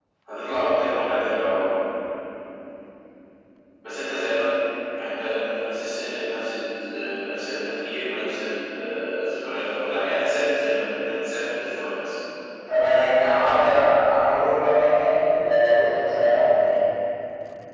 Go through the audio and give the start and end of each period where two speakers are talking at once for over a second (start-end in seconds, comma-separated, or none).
none